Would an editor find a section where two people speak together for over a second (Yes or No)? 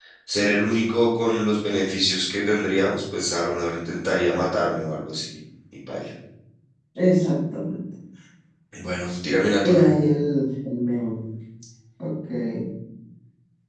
No